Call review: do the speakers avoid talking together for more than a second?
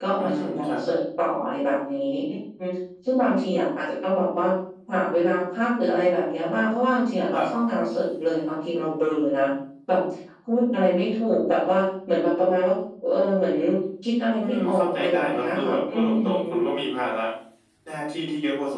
No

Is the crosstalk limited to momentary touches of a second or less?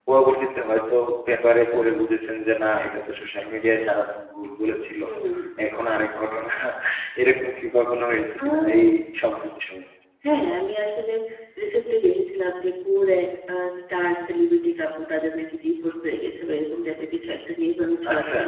Yes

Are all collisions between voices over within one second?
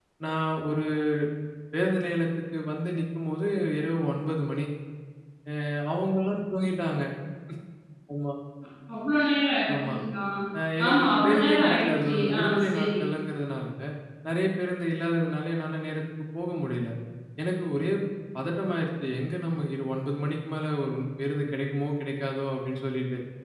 No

